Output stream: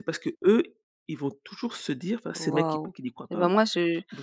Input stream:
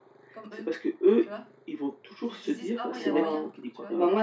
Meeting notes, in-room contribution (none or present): present